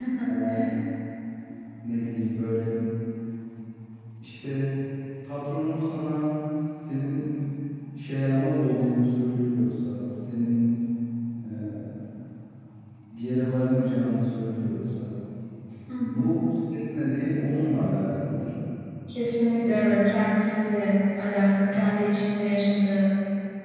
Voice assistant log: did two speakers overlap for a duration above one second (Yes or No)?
No